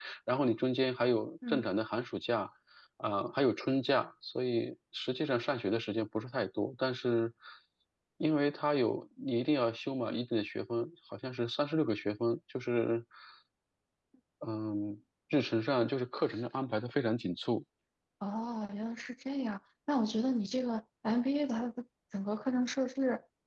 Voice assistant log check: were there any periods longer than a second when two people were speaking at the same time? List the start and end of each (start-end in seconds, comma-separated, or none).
none